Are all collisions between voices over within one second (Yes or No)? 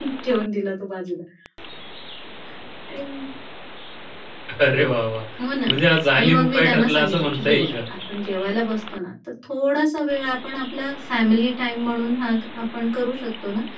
No